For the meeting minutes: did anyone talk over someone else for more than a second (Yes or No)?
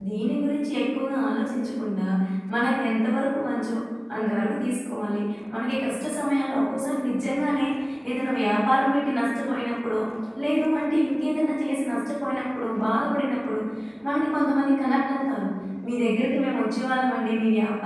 No